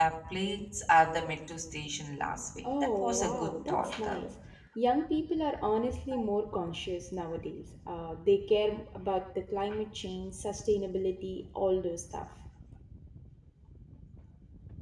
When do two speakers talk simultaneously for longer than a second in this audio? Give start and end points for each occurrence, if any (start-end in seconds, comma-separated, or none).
2.8-4.2